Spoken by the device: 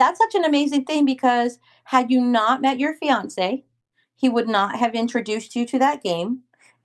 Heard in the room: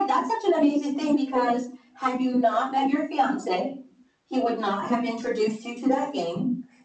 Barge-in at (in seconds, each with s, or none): none